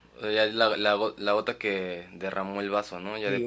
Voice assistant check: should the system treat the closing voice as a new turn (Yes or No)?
Yes